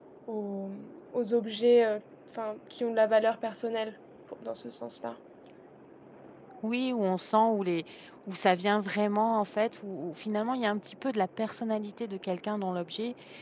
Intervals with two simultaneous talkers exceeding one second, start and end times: none

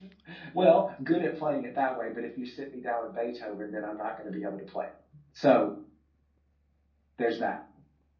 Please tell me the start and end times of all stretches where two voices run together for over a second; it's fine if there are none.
none

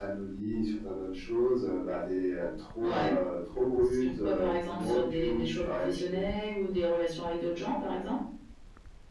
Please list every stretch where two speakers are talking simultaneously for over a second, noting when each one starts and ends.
4.0-6.3

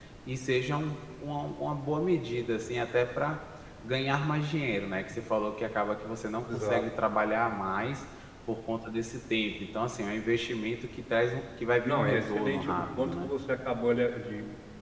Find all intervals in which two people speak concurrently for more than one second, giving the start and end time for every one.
11.8-13.3

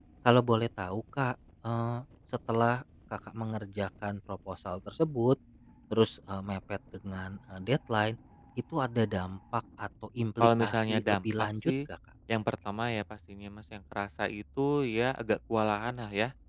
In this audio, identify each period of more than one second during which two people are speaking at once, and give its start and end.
10.4-11.7

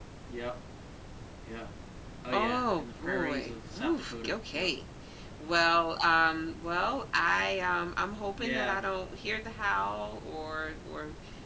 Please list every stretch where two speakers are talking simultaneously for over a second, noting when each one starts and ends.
2.3-4.7

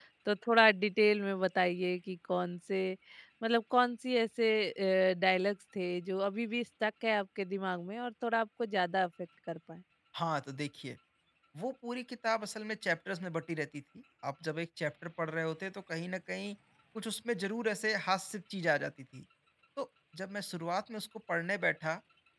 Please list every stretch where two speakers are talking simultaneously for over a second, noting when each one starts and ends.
none

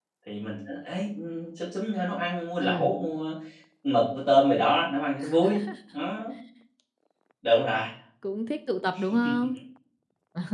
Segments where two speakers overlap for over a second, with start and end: none

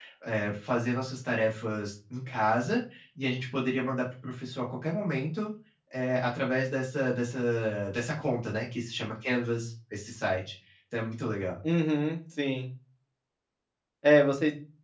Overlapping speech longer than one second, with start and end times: none

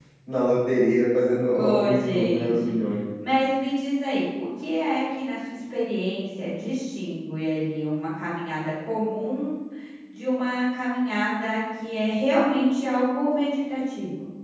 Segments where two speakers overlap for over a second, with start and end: 1.5-2.7

